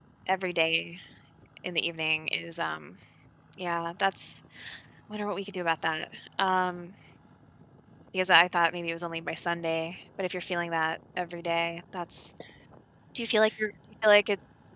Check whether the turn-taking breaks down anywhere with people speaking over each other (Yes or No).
No